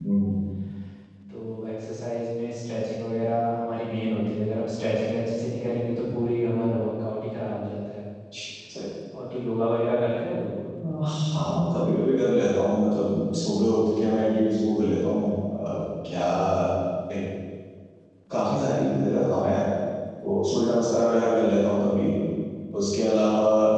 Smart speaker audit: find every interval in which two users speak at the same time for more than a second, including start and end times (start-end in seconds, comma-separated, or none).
none